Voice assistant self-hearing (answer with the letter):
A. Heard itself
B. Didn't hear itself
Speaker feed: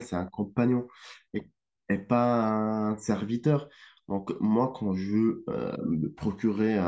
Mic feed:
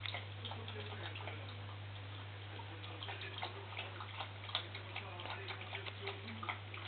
B